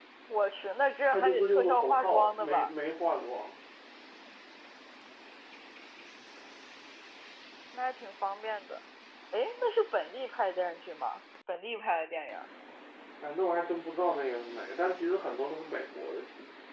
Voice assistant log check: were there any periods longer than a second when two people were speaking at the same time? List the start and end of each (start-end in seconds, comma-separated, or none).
1.1-2.7